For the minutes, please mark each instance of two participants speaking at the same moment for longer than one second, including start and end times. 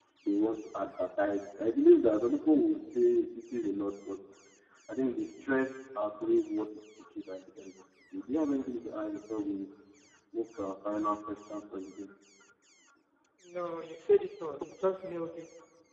none

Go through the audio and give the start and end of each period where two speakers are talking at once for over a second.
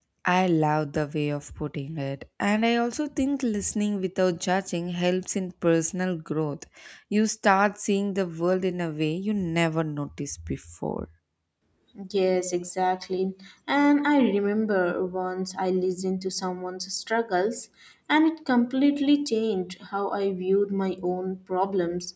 none

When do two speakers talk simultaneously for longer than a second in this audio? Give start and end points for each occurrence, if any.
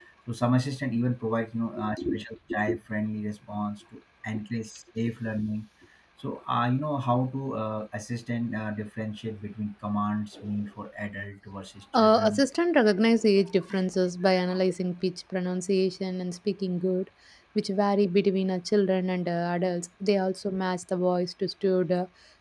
none

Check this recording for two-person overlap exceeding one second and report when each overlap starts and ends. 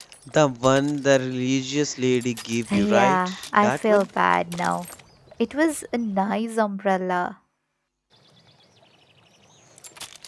2.7-4.1

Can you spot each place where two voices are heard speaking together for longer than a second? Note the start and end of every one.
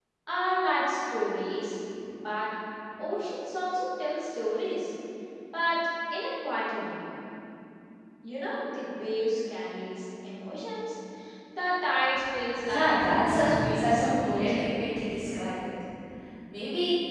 12.7-14.7

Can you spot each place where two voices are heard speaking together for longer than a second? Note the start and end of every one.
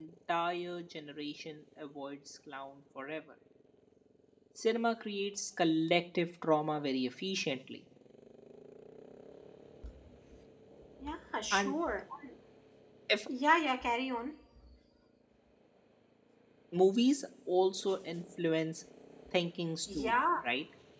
none

